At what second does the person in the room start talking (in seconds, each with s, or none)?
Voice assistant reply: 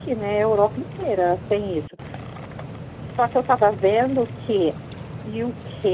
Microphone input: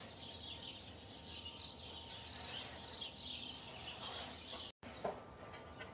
none